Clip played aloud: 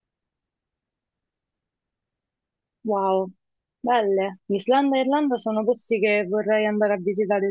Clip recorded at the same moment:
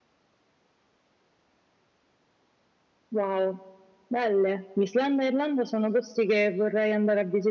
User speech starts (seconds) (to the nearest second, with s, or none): none